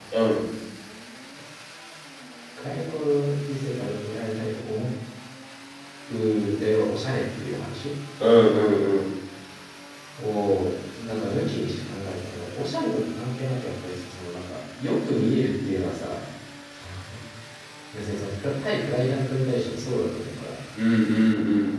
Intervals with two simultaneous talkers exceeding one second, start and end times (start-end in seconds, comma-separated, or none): none